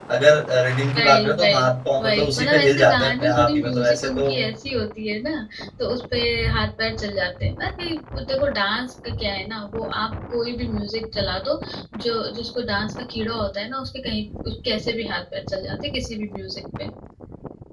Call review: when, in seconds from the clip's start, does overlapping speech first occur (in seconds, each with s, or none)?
1.0 s